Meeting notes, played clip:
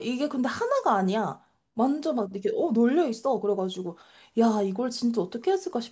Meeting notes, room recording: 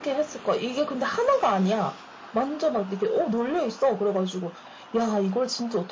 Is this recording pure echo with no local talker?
Yes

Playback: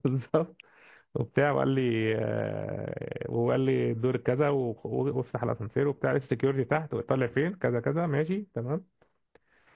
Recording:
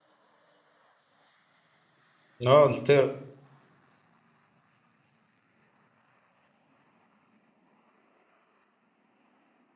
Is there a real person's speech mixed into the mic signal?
Yes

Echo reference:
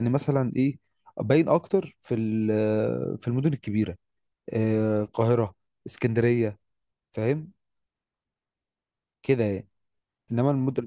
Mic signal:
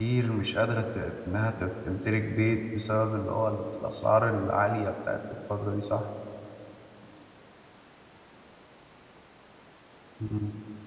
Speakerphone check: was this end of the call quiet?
No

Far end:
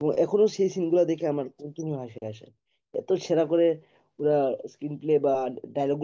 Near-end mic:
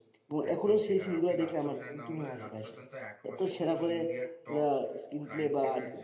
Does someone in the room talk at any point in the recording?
Yes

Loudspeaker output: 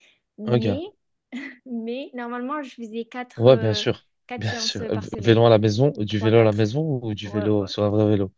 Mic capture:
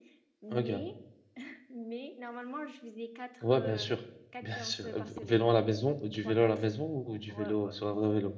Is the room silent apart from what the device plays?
Yes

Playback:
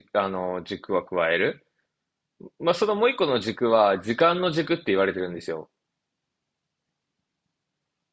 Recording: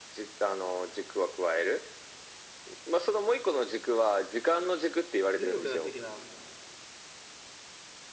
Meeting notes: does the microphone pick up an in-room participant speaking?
Yes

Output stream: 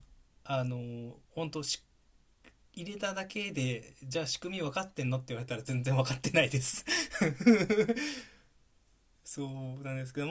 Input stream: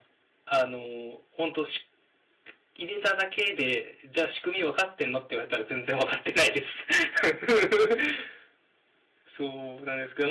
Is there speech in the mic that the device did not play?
No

